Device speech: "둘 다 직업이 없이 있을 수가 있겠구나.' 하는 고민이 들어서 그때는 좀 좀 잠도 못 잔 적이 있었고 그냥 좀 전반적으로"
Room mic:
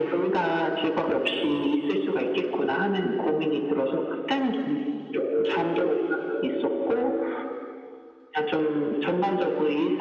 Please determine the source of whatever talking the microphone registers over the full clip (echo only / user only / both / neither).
echo only